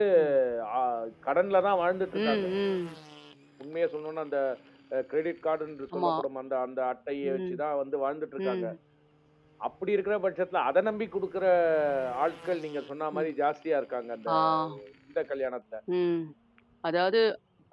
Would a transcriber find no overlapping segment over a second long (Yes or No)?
Yes